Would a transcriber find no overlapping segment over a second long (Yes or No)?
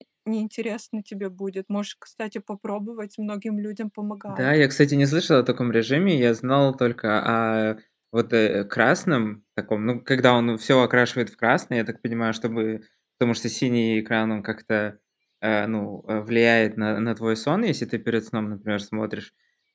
Yes